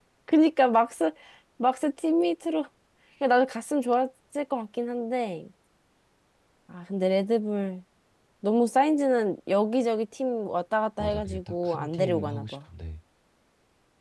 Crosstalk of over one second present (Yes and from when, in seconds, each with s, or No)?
Yes, from 11.0 s